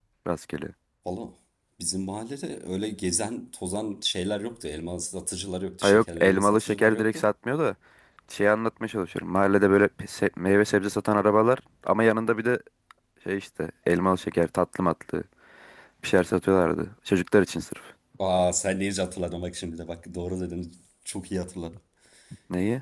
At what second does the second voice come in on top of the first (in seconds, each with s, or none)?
5.8 s